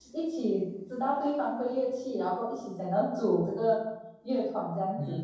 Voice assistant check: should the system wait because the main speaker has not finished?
No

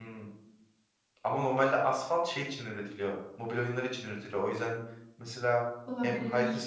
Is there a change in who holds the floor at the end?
No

